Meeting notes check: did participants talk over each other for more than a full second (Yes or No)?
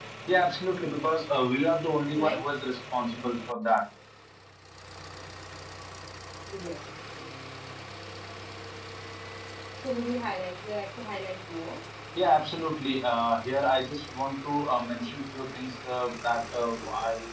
No